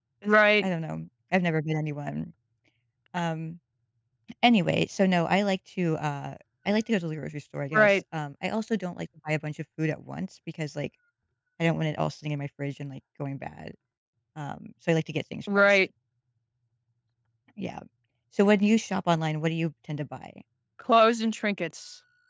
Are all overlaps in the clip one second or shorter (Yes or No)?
Yes